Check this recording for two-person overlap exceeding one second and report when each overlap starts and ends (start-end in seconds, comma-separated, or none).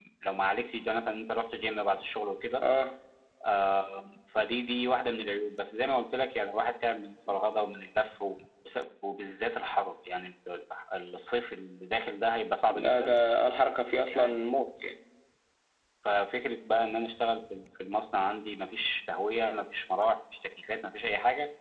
none